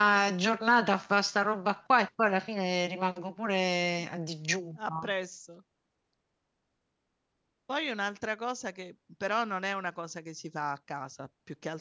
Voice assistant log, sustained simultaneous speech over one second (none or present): none